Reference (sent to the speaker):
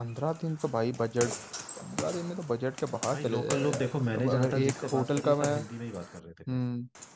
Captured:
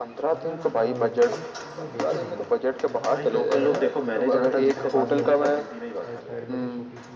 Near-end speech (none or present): present